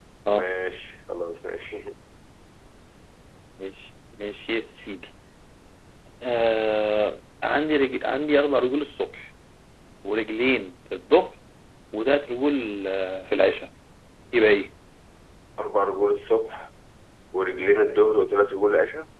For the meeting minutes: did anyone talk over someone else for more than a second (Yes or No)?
No